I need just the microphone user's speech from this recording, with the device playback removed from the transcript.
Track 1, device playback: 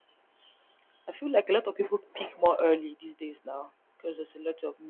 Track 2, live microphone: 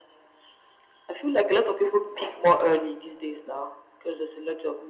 none

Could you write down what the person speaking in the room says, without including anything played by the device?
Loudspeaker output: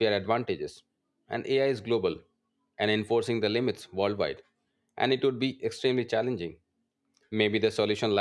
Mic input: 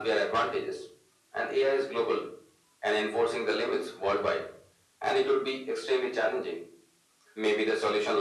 none

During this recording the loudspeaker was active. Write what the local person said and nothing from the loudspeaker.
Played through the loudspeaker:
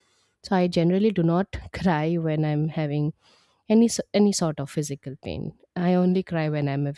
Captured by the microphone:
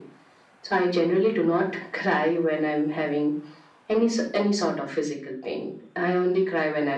none

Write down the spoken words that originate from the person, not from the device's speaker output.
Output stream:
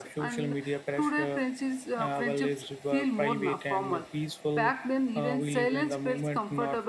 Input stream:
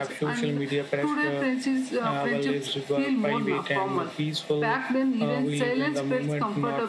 none

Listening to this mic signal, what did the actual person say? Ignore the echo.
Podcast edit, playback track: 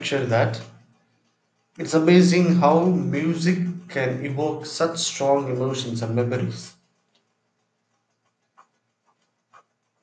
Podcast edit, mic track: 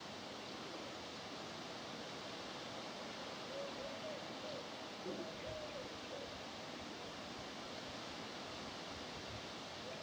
none

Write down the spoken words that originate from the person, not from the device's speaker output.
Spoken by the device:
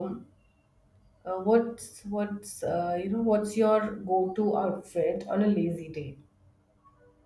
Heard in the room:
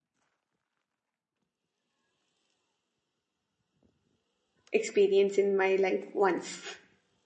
experience in my life once.

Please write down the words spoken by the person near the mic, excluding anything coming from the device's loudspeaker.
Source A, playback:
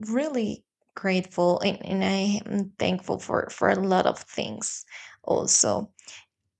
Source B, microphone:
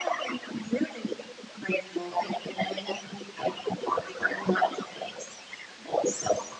none

